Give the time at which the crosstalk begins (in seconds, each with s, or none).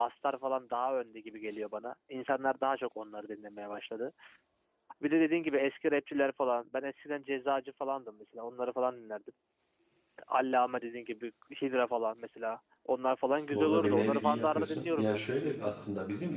13.5 s